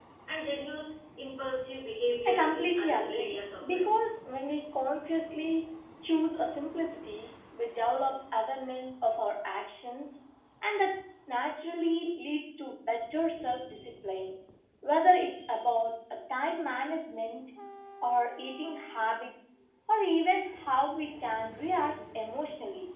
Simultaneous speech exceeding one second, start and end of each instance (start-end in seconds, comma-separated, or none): 2.3-3.9